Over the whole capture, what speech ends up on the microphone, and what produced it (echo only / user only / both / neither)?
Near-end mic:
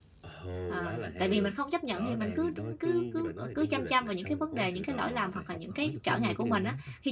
both